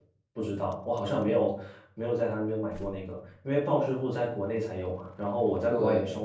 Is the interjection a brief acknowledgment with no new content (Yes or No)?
Yes